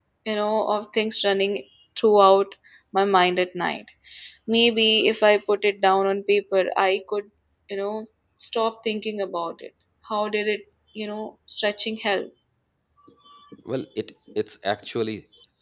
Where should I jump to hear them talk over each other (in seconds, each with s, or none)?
none